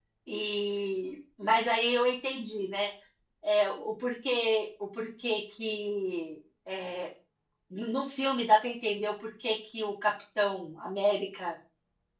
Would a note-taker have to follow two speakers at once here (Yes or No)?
No